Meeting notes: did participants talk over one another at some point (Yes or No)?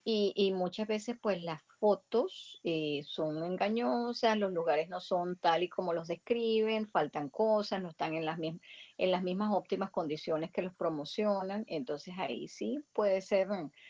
No